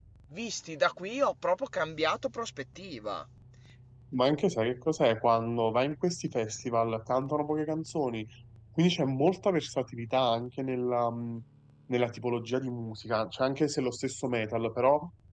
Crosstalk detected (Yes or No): No